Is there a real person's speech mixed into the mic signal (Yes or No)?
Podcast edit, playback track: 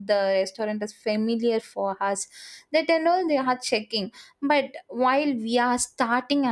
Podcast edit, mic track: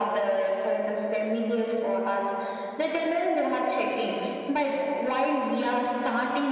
No